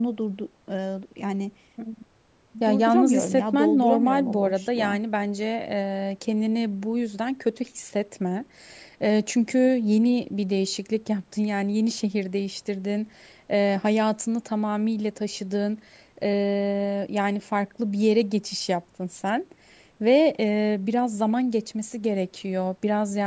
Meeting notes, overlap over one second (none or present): present